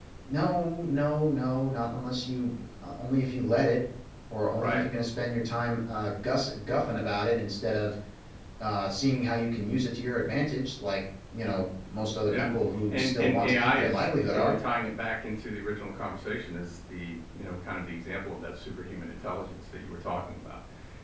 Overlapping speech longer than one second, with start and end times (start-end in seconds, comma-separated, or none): 12.9-14.5